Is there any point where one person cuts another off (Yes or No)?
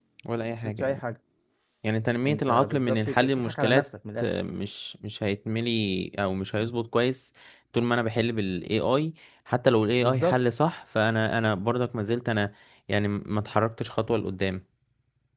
Yes